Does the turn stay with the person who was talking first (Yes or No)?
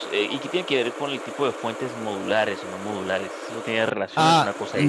No